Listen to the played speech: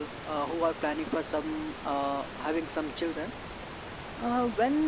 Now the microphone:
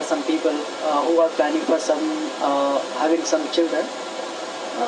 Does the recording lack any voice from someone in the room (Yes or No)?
Yes